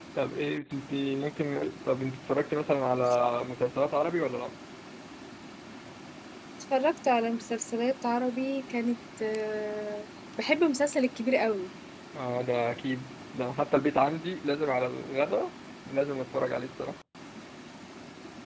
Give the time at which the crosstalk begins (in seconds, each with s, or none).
none